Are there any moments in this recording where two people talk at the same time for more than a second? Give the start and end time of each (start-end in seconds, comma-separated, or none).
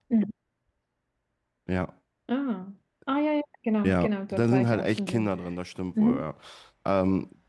3.8-5.3